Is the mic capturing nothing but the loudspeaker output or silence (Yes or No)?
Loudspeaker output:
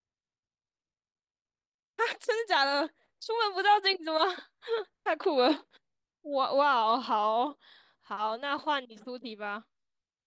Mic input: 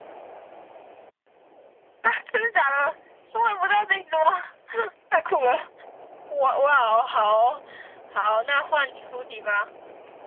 Yes